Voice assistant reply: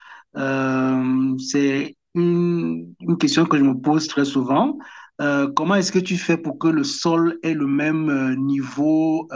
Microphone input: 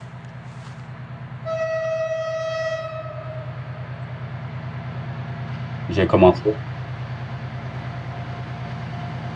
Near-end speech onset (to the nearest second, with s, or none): 6 s